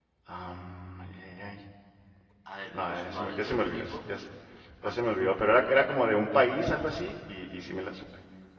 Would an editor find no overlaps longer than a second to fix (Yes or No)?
No